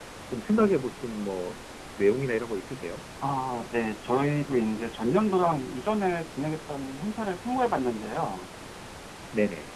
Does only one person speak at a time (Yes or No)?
Yes